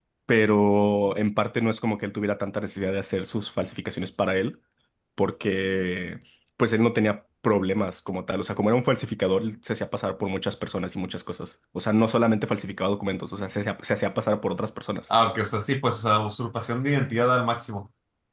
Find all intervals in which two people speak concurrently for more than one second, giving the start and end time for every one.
none

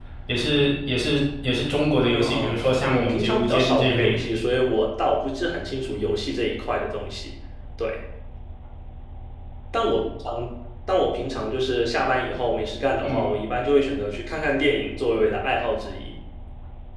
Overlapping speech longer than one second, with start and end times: 1.9-4.2

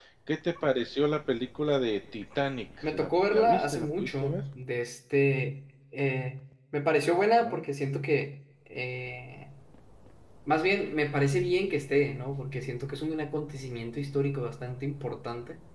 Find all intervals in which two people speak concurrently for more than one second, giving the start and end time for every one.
2.8-4.4

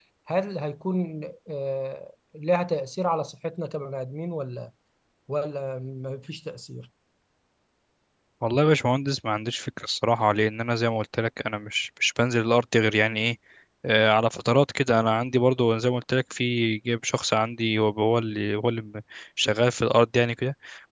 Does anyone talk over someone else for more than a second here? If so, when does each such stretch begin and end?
none

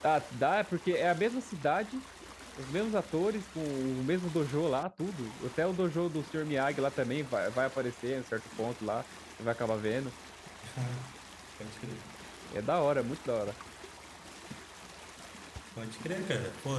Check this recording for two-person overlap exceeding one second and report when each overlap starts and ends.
none

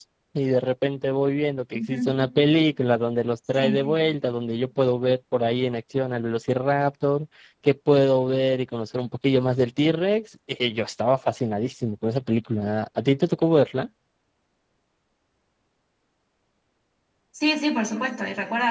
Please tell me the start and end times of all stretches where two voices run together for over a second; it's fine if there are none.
none

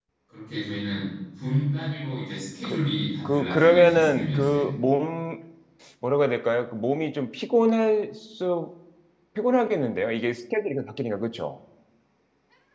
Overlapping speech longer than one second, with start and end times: 3.2-4.8

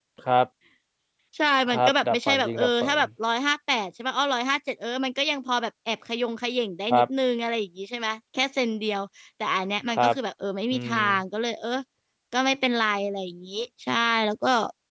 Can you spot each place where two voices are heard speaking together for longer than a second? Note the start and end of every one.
1.7-3.0

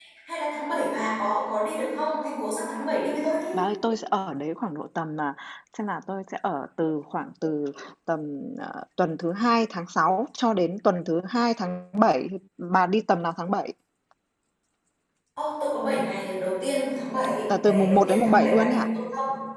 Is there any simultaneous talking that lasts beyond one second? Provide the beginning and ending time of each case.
17.6-18.9

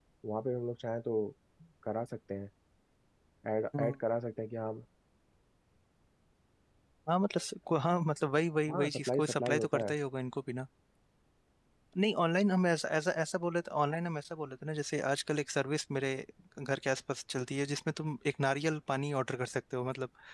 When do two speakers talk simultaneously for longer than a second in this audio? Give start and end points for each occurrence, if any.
8.7-9.9

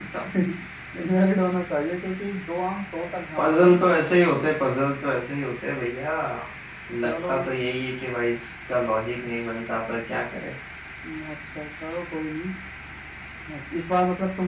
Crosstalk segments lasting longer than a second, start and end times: none

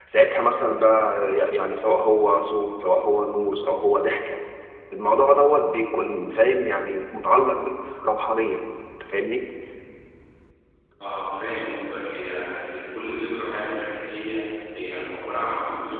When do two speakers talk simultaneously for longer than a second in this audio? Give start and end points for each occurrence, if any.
none

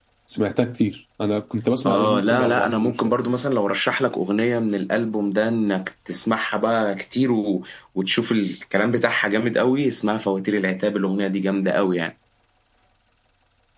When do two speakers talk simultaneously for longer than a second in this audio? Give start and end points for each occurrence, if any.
1.9-3.1

